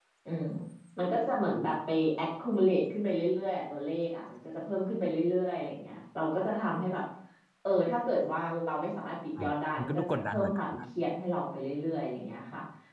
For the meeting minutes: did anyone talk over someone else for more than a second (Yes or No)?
Yes